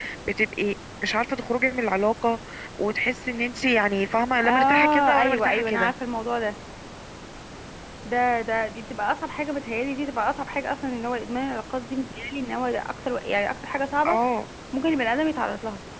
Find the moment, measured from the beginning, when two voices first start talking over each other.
4.4 s

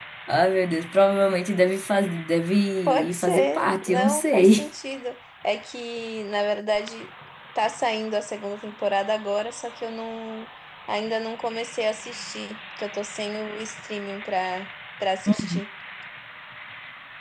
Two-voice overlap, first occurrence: 2.8 s

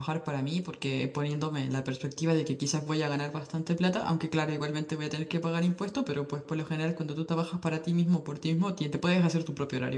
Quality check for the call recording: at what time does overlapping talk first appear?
none

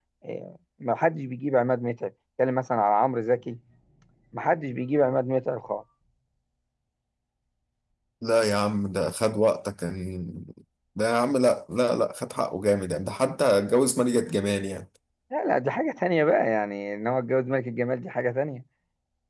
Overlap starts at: none

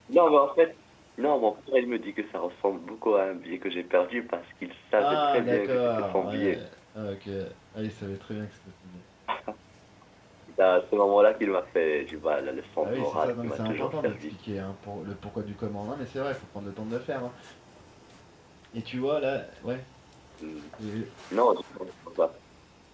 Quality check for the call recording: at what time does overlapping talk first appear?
5.0 s

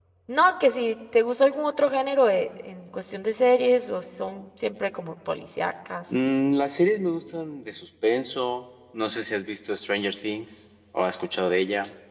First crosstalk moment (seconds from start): none

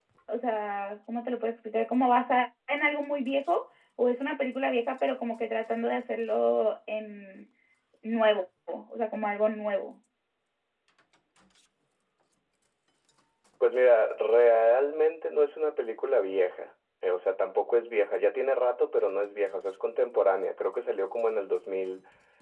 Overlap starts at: none

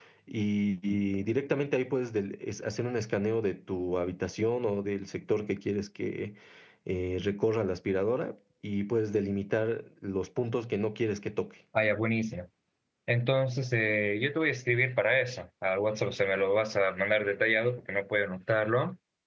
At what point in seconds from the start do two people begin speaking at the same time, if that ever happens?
none

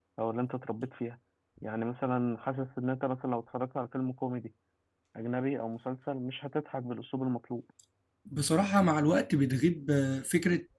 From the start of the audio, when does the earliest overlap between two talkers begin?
none

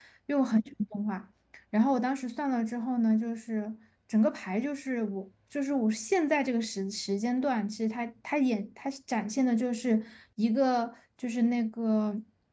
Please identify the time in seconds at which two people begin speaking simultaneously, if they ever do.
none

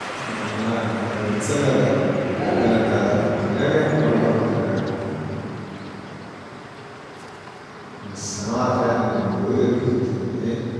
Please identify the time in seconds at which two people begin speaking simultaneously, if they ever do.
2.3 s

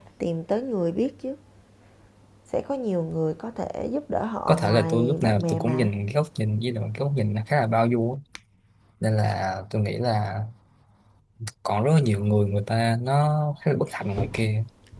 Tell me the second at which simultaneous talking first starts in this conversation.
4.5 s

